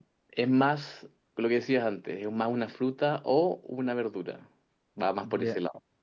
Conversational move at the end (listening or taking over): taking over